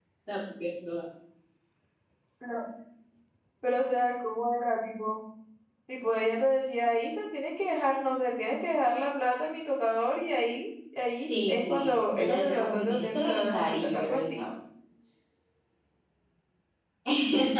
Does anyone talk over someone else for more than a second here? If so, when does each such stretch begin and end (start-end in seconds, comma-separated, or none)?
11.2-14.4